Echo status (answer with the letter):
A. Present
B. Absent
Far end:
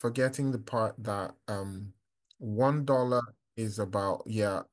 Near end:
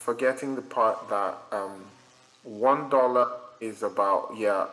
A